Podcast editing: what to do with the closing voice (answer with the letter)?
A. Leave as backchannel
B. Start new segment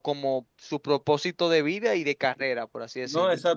B